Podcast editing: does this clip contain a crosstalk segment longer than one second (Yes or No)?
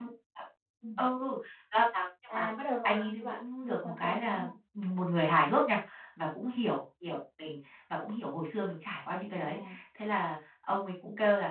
Yes